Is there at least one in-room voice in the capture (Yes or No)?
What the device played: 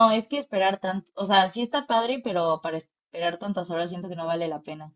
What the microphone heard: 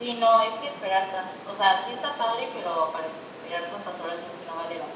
No